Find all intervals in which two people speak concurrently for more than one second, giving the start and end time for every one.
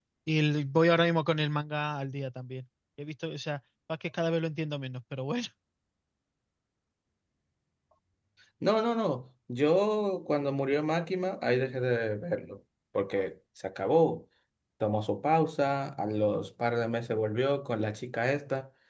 none

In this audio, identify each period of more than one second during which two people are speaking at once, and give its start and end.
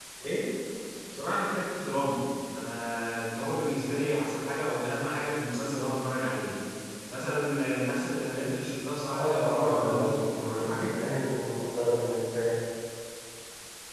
9.1-11.0

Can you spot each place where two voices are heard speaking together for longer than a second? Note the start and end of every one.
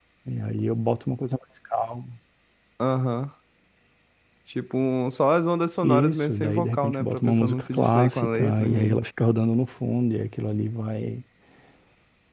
5.8-9.0

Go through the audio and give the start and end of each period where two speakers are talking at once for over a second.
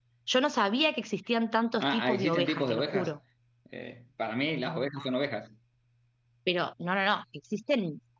1.8-3.1

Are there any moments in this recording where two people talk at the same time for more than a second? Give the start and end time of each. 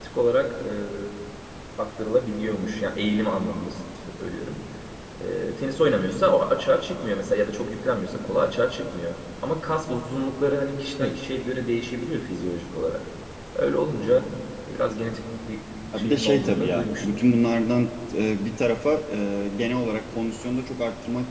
16.0-17.2

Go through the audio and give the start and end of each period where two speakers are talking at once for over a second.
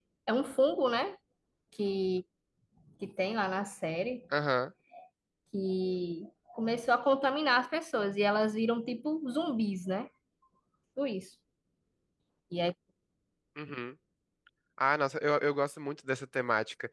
none

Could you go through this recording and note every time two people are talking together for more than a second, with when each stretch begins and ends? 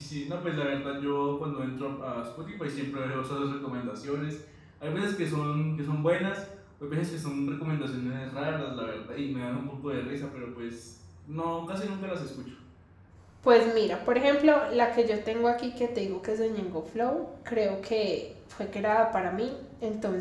none

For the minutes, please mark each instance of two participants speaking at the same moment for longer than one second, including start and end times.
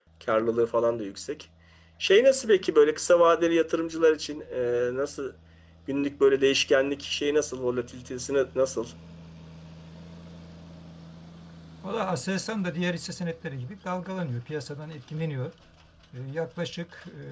none

